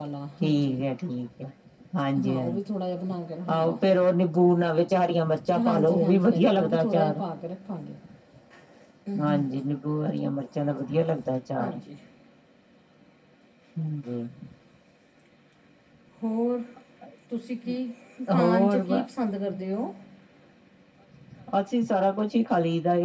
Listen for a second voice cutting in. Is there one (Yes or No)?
Yes